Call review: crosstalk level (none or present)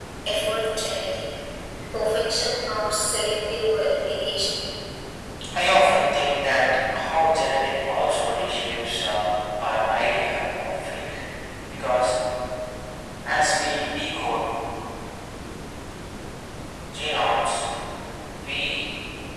none